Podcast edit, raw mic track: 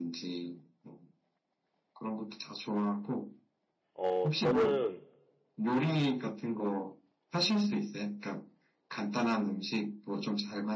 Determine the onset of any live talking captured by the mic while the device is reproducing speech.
4 s

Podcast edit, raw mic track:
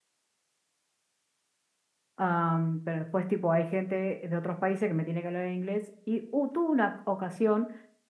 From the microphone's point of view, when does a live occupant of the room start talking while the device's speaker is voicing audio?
2 s

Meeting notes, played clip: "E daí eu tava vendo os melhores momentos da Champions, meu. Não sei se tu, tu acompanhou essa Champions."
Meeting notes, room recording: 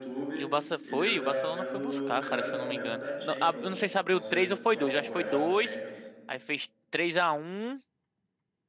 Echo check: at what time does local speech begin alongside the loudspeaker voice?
0 s

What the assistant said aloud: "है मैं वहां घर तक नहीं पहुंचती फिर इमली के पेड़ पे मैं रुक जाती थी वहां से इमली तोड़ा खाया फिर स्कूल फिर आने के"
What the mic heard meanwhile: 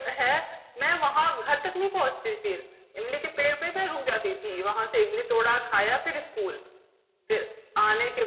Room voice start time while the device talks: none

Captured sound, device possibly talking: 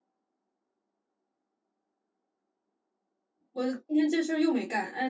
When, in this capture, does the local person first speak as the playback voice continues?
4 s

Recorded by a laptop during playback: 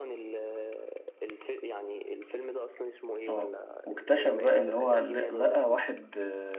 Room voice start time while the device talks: 3 s

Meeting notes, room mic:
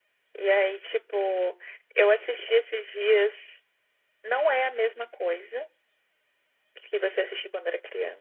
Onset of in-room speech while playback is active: none

